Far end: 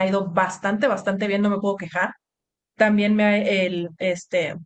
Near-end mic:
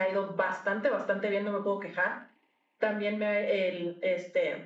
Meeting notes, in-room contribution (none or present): none